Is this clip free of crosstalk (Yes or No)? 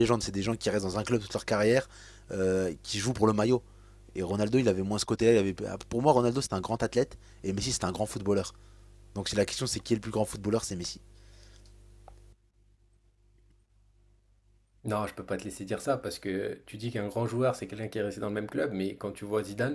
Yes